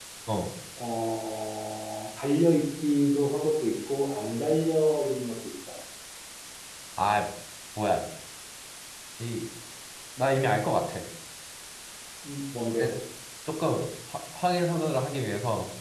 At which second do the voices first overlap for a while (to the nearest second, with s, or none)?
none